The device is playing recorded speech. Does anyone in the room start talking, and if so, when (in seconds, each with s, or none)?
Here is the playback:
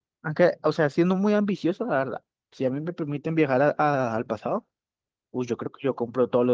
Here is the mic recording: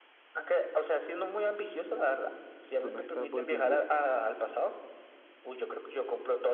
2.8 s